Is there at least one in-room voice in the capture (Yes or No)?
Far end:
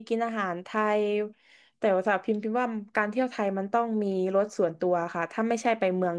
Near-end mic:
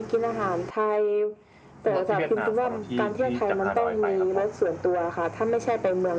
Yes